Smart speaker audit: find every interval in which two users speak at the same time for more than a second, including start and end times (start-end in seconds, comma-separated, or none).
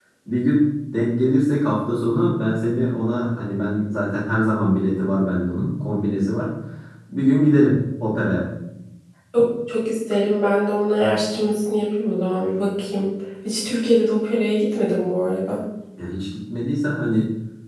none